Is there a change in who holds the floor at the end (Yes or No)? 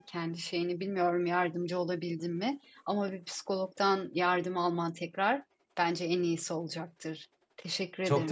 Yes